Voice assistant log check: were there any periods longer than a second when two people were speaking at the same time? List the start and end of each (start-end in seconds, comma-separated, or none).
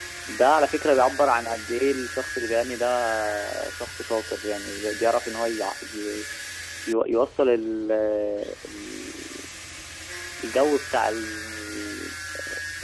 none